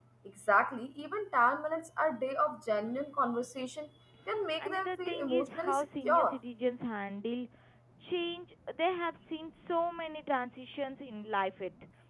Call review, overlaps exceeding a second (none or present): present